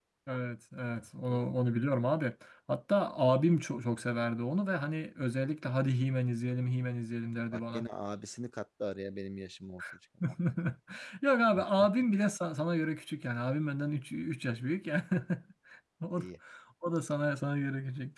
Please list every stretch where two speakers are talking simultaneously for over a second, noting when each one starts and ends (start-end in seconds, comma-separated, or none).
none